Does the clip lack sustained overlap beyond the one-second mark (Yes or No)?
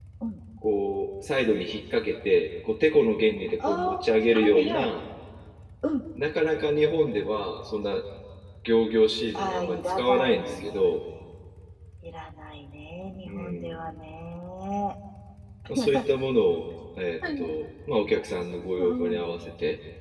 No